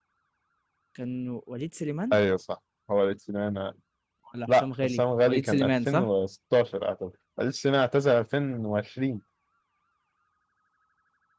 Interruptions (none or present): present